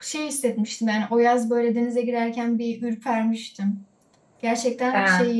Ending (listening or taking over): listening